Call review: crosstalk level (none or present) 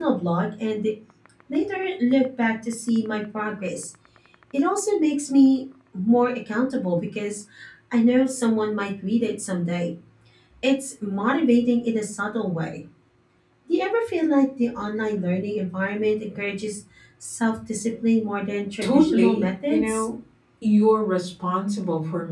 present